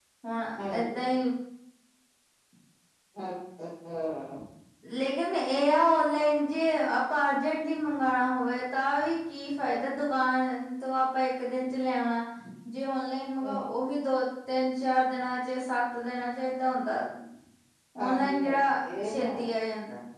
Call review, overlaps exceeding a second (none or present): present